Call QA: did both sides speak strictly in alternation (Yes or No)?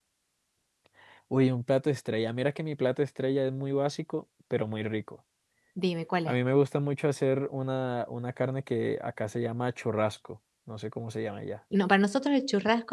Yes